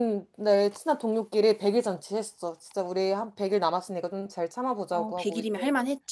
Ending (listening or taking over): taking over